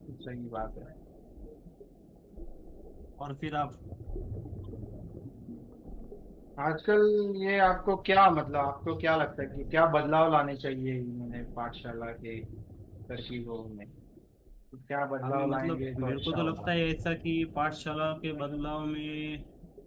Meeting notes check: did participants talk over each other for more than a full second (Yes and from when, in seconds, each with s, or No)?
Yes, from 15.2 s